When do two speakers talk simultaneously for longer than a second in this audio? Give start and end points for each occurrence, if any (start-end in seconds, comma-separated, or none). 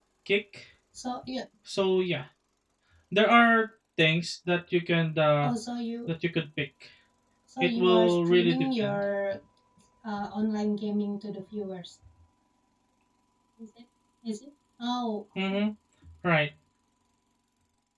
7.6-9.0